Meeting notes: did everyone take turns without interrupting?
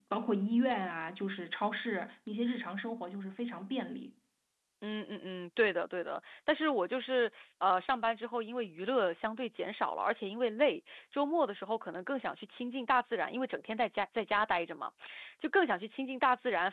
Yes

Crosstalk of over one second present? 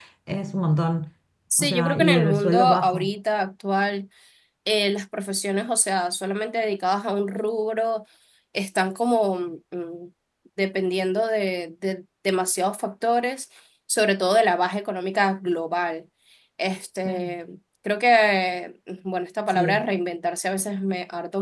Yes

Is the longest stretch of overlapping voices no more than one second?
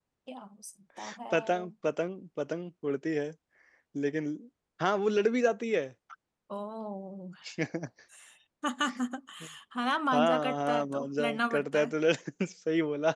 No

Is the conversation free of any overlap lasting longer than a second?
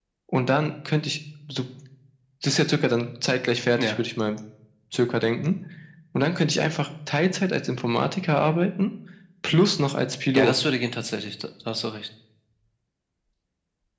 Yes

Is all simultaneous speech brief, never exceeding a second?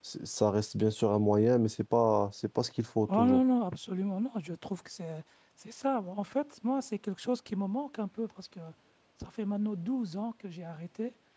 Yes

